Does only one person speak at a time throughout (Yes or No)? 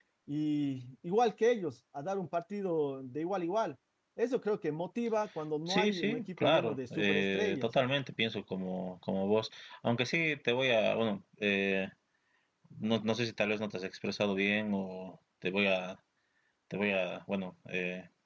No